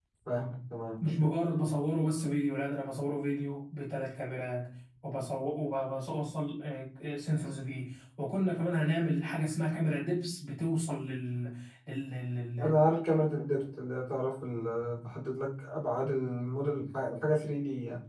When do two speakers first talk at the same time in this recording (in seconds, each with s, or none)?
none